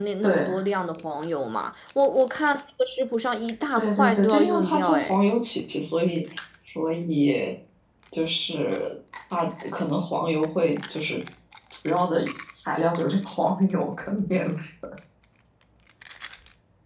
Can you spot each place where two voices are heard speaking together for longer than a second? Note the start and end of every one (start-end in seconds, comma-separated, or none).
3.7-5.2